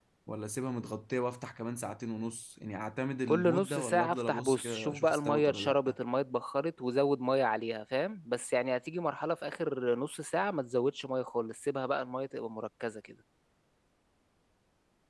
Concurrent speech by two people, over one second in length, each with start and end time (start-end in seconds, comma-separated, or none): 3.3-6.0